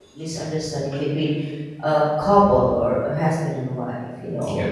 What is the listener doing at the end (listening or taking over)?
listening